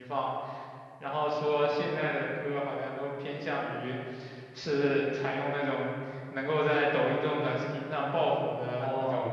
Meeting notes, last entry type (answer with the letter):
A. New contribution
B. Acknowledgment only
A